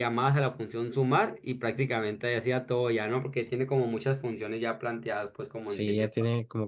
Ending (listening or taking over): taking over